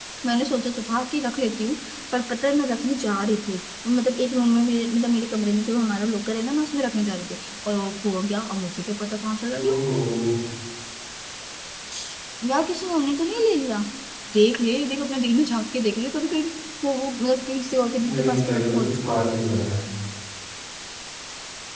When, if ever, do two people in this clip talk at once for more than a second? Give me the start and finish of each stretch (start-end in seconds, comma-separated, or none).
18.0-19.3